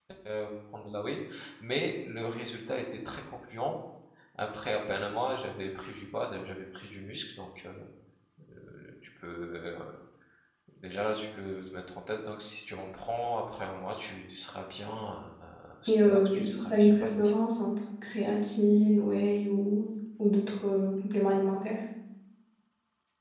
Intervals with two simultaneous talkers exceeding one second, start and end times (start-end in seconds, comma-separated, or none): 15.9-17.3